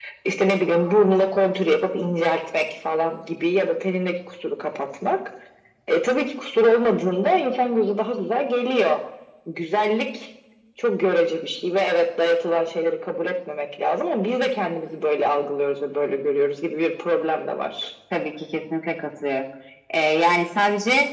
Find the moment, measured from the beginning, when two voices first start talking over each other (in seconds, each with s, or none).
none